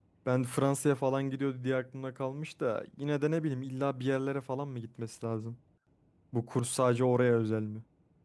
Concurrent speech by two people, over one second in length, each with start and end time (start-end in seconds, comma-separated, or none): none